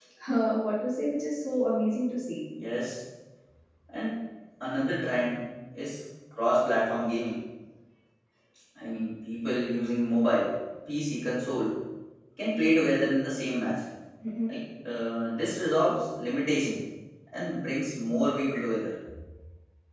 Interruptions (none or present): none